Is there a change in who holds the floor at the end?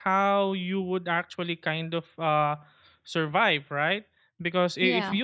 No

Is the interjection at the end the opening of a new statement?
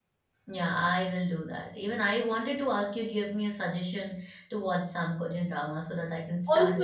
Yes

